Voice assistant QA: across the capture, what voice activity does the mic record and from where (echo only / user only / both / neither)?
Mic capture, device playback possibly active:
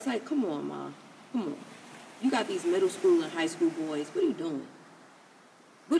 echo only